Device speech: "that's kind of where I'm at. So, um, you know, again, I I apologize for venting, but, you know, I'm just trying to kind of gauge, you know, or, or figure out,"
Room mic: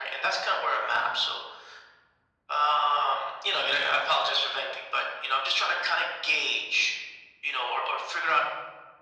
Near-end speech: none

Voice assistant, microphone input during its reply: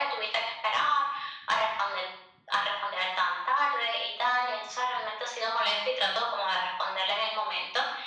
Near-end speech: none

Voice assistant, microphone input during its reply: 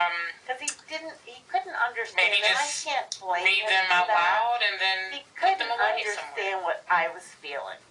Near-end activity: none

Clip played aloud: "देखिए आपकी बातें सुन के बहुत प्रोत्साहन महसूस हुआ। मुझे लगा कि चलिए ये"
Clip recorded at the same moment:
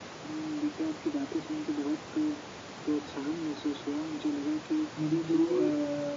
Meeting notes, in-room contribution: present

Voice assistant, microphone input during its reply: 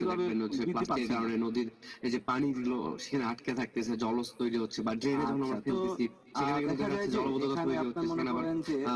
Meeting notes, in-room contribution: none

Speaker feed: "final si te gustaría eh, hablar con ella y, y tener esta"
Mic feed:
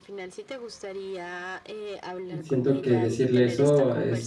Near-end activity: present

